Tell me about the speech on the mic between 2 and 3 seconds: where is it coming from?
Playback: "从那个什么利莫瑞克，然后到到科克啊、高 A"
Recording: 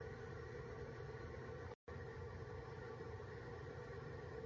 neither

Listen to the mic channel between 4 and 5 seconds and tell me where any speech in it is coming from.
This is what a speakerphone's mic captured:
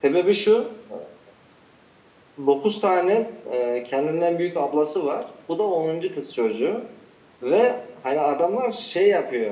user only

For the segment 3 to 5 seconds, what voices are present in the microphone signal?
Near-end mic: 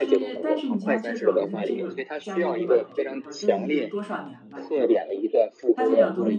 both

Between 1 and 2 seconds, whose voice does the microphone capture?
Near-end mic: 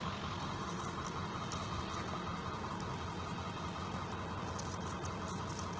neither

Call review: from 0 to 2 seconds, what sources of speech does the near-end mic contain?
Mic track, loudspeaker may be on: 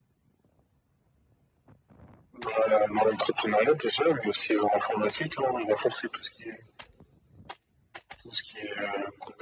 neither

